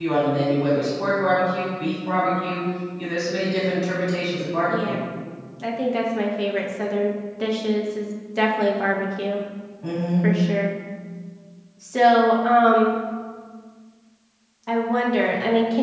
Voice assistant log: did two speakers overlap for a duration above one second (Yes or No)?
No